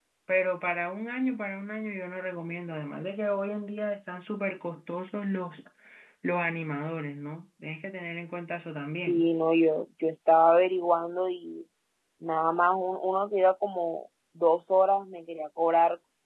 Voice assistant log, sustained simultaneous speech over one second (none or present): none